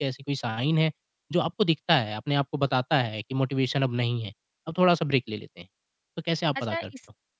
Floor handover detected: Yes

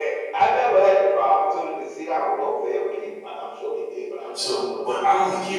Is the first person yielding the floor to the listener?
Yes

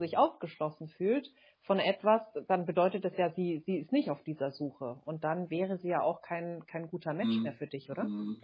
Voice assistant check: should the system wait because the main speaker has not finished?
No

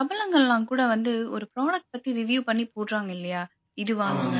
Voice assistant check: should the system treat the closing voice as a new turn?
No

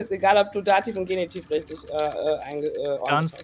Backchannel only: No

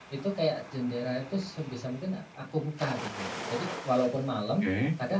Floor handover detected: No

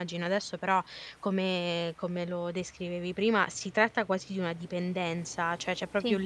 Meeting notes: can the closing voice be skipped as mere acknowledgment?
Yes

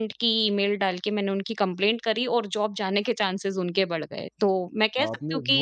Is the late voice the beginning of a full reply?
Yes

